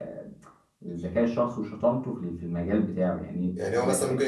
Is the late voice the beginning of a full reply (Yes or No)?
Yes